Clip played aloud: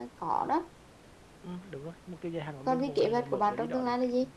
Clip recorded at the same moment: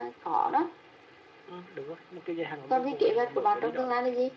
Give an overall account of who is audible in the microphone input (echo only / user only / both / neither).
echo only